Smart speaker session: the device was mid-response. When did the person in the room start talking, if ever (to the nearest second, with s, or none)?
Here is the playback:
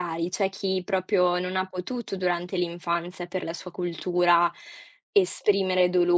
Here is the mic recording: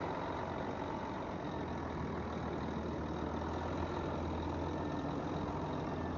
none